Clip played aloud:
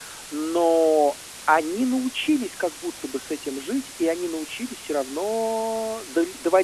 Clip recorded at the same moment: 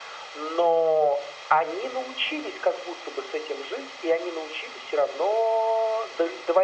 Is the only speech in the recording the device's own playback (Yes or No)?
Yes